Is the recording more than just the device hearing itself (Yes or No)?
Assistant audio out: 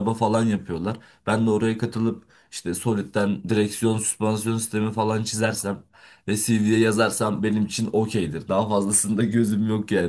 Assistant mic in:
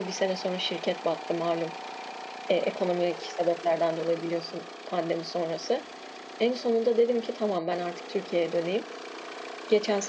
Yes